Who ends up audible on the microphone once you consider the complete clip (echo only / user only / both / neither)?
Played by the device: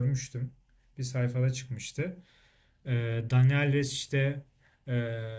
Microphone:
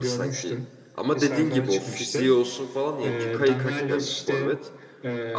both